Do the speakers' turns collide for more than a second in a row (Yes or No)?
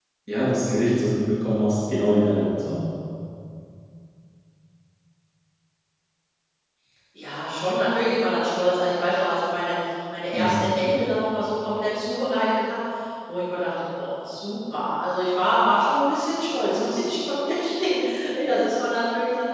No